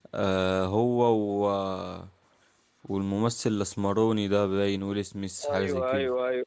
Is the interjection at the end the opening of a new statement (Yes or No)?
Yes